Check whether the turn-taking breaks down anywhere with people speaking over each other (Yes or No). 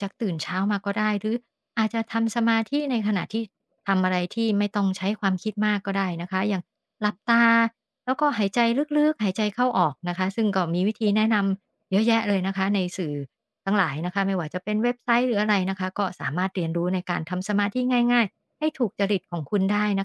No